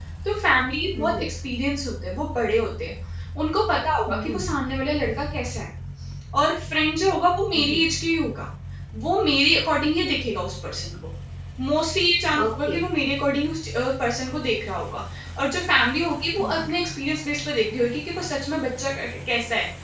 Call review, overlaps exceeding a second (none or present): none